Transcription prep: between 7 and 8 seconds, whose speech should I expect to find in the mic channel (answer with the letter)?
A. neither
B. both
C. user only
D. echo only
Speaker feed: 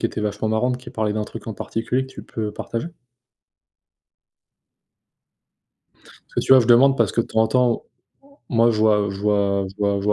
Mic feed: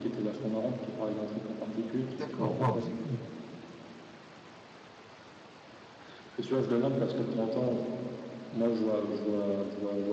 D